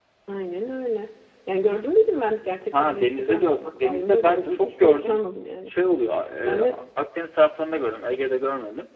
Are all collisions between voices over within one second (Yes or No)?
No